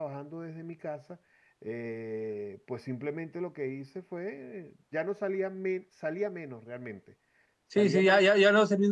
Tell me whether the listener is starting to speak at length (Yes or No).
Yes